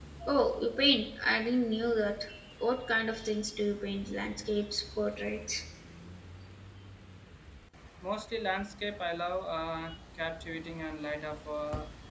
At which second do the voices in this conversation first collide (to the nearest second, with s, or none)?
none